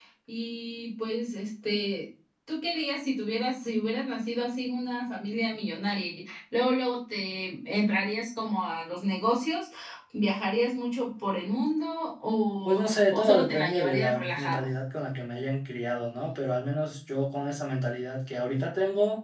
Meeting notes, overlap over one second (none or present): present